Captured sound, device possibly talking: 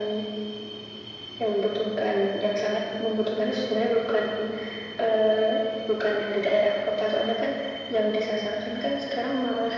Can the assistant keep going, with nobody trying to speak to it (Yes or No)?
Yes